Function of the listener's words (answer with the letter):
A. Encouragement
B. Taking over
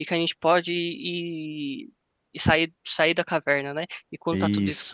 A